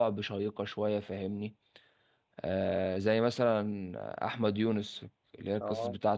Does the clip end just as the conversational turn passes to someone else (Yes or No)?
No